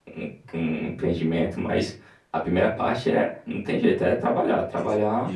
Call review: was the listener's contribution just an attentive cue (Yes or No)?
No